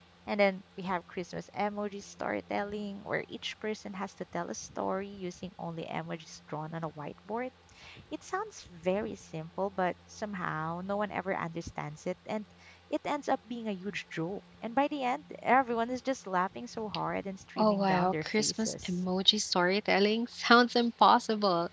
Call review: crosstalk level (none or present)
present